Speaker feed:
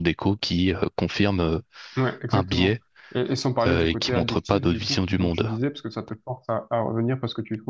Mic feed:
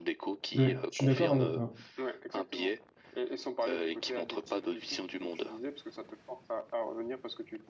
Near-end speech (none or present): present